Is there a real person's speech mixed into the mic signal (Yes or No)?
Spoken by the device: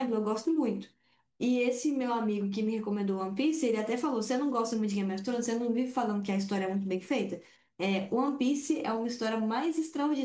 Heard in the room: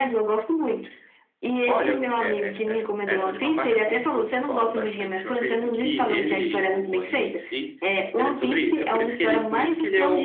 Yes